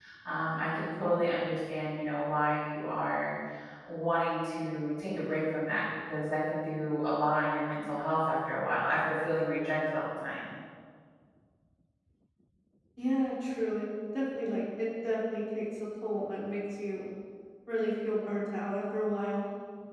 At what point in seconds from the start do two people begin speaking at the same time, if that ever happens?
none

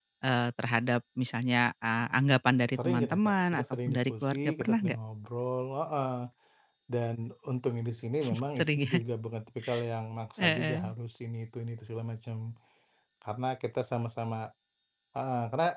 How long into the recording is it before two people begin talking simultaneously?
2.7 s

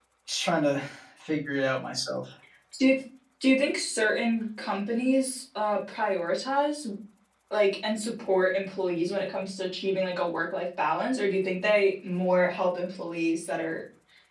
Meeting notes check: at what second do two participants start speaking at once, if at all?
none

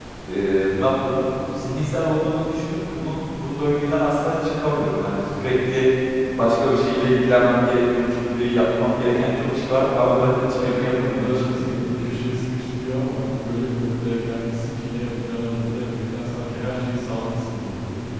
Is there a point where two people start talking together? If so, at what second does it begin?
10.5 s

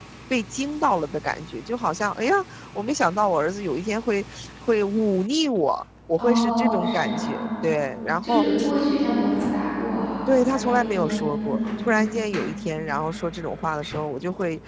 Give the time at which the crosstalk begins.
6.2 s

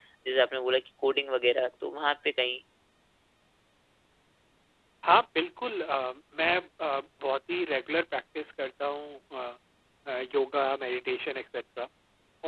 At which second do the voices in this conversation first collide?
none

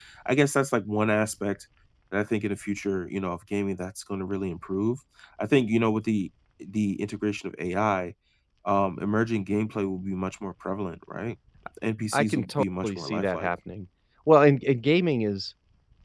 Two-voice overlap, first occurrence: 12.1 s

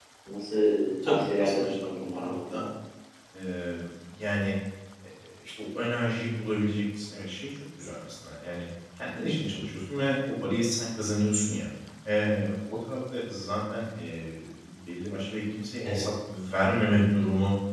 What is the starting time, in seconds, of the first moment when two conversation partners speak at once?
1.0 s

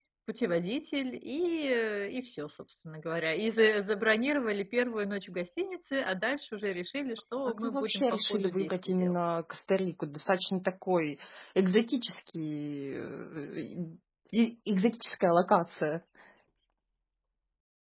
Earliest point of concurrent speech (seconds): 7.5 s

